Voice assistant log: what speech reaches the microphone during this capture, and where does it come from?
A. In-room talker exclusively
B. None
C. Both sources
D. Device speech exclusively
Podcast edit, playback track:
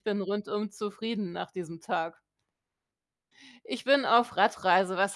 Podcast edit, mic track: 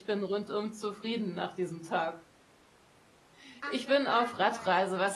C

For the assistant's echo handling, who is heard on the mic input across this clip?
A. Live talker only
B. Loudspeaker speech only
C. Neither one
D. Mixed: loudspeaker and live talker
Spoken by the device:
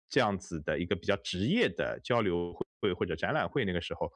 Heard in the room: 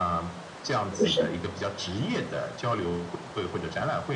D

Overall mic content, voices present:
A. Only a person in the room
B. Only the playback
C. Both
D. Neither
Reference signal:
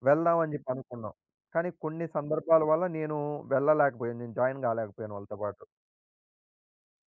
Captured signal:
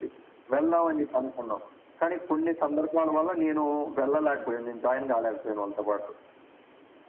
C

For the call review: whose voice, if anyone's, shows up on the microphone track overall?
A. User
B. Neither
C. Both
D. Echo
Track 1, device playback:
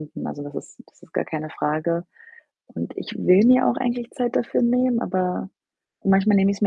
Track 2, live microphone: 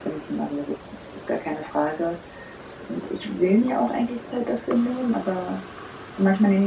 D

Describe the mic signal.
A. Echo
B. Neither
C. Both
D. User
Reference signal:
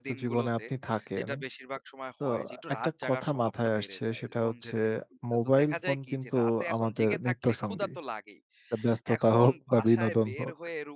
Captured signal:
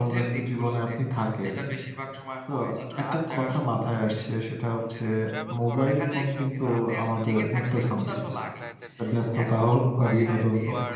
C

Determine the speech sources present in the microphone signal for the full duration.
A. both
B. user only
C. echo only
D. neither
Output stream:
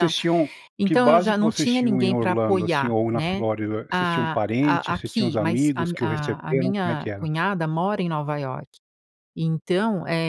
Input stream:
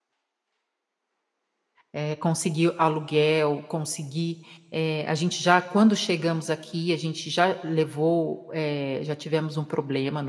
B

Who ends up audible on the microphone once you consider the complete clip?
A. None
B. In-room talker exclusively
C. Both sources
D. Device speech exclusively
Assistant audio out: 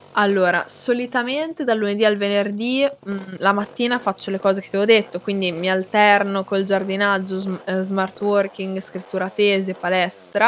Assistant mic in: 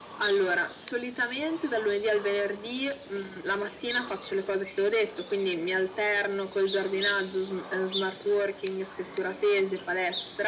D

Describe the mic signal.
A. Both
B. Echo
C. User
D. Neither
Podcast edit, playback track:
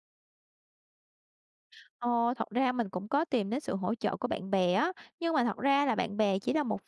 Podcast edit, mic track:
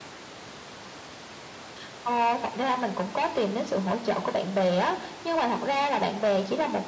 B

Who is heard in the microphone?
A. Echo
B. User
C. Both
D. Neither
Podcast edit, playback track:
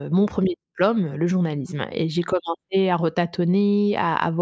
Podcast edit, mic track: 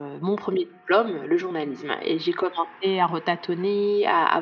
A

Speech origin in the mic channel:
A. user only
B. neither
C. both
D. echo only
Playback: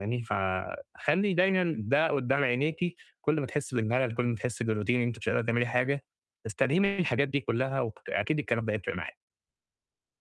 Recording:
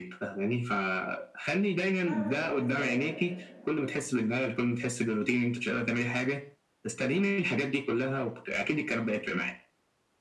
C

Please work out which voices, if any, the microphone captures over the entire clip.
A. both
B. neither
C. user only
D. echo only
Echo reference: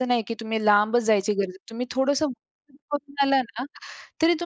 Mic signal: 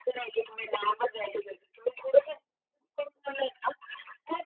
D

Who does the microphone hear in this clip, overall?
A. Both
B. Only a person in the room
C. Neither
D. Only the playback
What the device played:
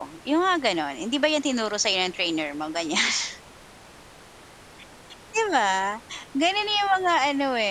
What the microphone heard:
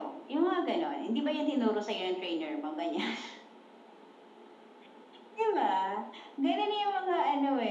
D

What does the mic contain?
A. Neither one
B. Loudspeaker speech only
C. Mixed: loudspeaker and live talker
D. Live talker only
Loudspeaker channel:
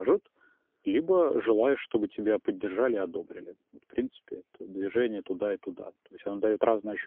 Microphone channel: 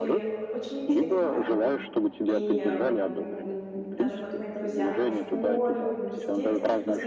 C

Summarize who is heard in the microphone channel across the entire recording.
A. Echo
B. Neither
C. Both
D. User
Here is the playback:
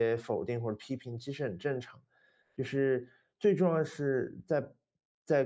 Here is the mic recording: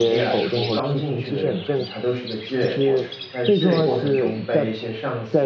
C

